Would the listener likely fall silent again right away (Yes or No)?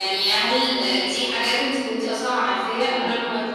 Yes